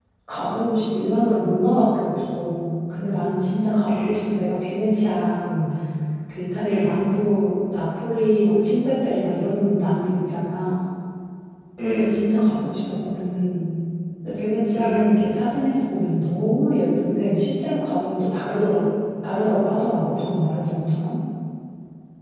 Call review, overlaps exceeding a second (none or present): none